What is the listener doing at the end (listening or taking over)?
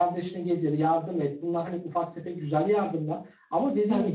listening